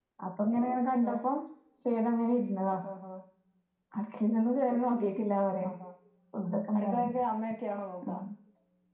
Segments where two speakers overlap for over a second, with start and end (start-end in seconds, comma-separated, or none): none